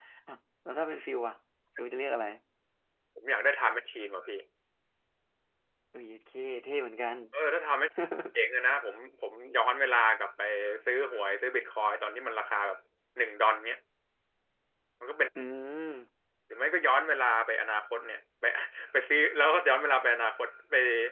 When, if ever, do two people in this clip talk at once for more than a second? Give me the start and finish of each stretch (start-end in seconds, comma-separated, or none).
none